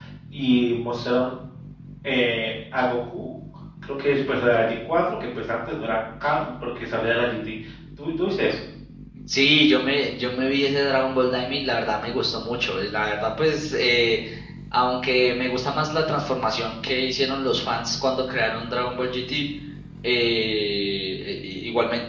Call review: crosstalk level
none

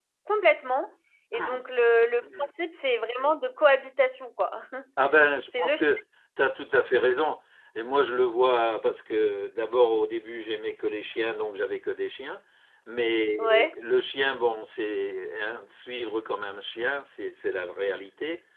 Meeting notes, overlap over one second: none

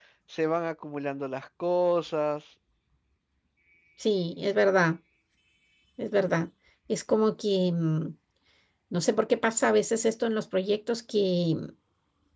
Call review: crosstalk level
none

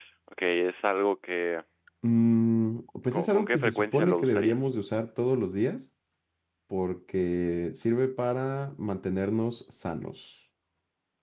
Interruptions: present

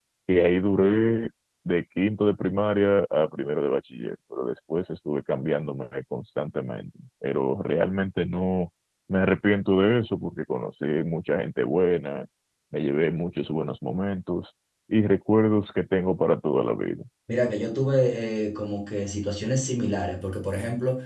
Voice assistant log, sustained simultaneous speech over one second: none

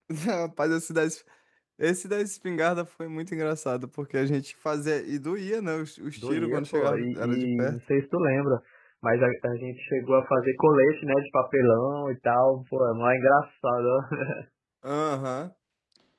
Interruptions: present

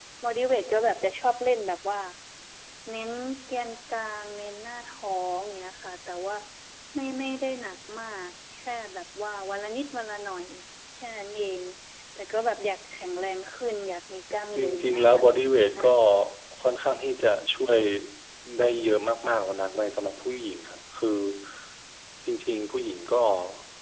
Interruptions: present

